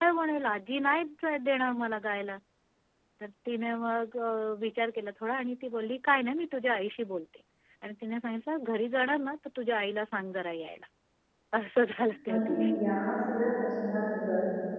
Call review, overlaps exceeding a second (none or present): none